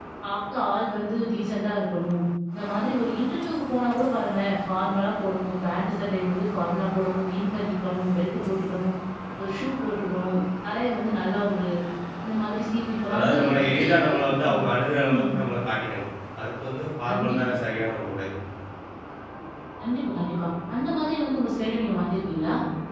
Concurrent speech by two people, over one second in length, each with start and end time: 13.1-15.3

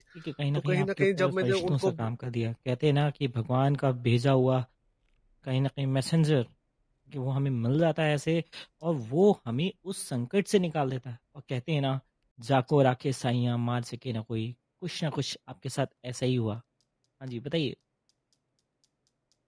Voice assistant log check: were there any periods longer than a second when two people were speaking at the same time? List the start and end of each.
0.6-2.1

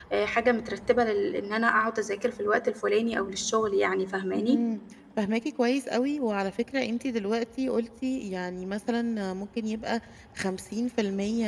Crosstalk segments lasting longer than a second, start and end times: none

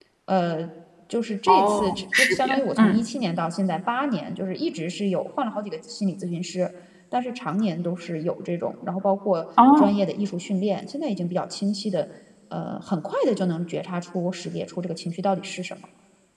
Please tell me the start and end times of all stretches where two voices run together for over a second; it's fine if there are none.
1.5-3.0

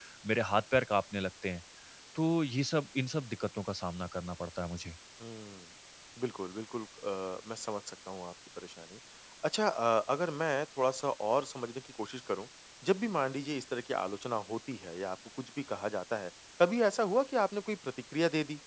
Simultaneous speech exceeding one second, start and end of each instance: none

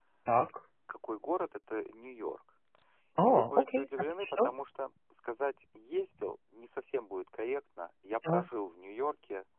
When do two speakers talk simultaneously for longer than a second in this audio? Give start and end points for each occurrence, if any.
3.2-4.5

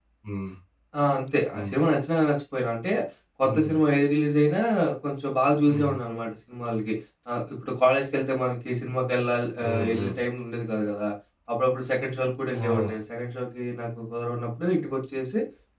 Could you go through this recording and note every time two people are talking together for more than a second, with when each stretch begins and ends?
none

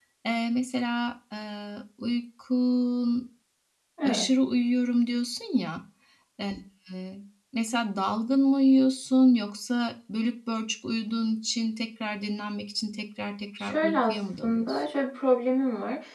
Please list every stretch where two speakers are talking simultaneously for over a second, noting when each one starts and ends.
13.6-14.8

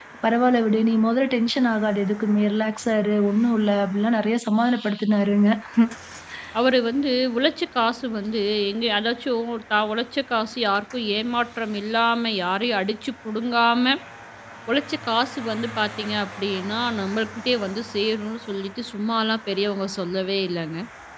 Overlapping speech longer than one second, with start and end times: none

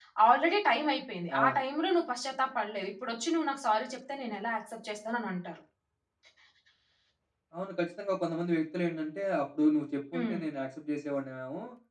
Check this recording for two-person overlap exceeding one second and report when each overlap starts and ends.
none

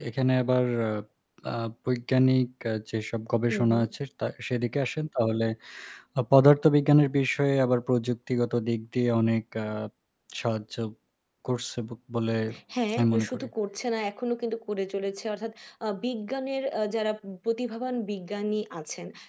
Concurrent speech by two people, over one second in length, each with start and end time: none

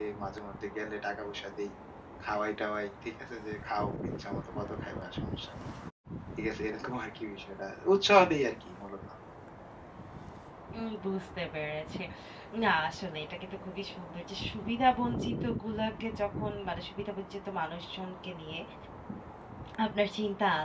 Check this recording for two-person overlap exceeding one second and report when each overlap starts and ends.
none

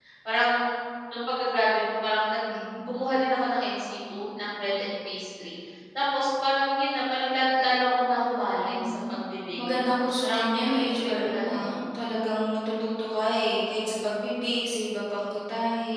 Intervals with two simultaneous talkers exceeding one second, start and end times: 10.2-11.6

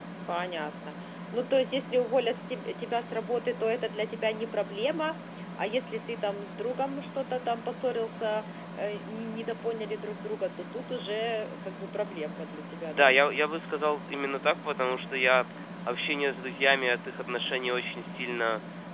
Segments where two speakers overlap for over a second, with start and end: none

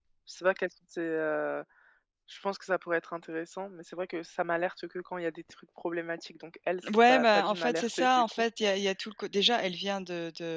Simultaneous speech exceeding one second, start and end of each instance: 7.1-8.4

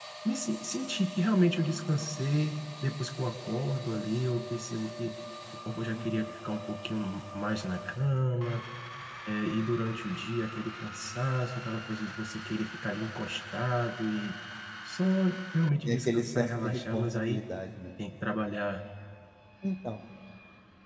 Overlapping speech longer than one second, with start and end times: 15.8-17.4

